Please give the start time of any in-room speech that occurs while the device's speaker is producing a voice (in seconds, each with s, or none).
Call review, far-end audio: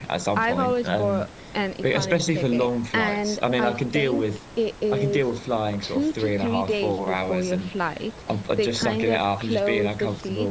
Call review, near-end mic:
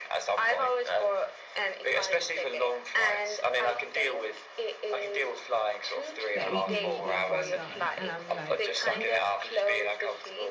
6.3 s